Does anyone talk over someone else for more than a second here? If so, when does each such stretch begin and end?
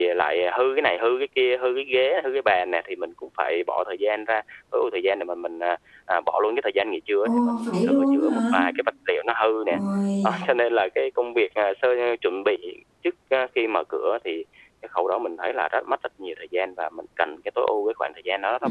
7.2-8.5

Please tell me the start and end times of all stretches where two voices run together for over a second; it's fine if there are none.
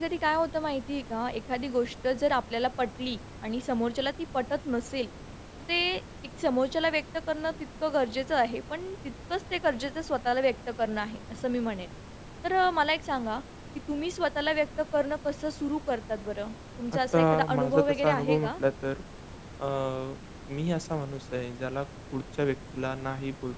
17.1-18.5

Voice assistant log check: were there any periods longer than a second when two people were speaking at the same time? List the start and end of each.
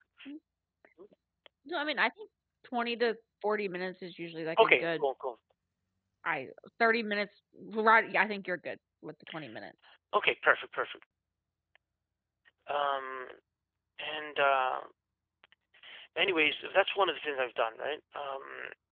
none

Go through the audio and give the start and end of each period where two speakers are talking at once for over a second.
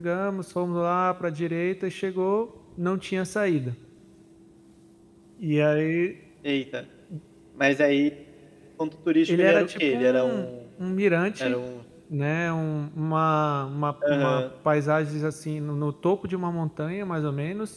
9.3-10.5

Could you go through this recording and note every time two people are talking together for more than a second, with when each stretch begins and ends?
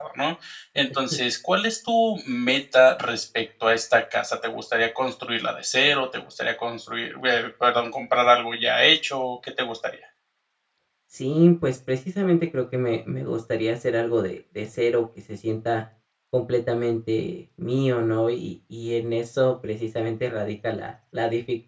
none

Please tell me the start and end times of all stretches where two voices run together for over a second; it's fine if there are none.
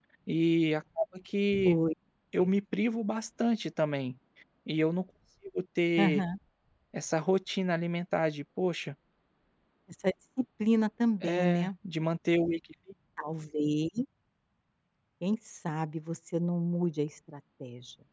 none

